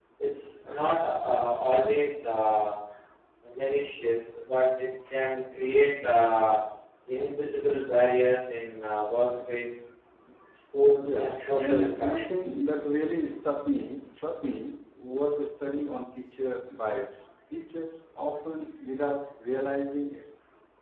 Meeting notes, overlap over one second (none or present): present